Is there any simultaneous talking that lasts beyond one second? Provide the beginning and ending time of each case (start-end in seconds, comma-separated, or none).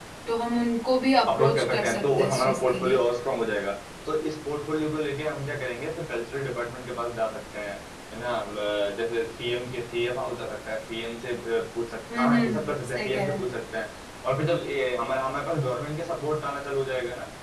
1.3-3.0, 12.1-13.4